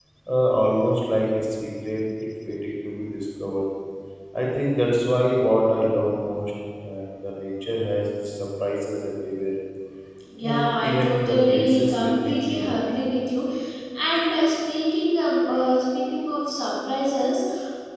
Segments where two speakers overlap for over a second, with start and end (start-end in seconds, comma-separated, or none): 10.4-12.9